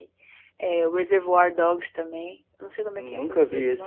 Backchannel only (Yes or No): No